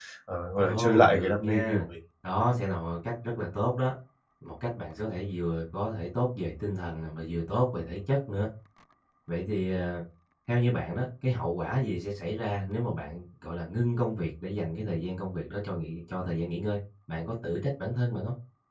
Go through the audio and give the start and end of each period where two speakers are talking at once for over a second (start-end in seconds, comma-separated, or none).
0.6-1.8